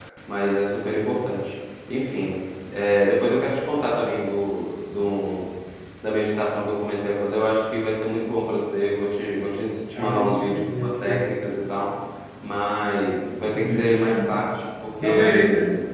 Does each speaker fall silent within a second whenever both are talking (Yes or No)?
No